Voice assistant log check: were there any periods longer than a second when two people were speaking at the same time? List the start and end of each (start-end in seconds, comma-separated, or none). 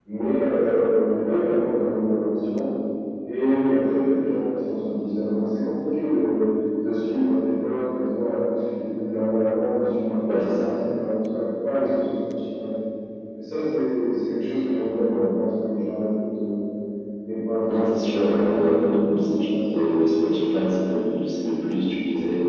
17.7-20.2